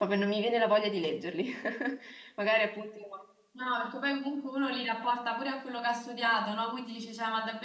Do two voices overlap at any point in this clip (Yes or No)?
No